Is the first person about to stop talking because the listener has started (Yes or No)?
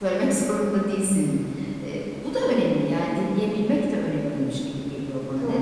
Yes